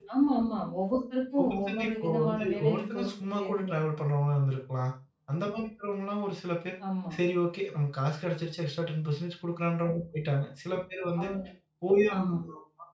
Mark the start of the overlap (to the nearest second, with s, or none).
1 s